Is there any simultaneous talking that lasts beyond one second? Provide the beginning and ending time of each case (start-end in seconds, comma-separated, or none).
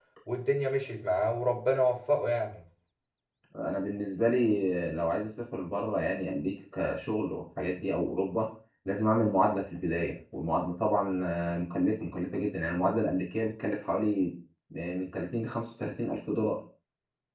none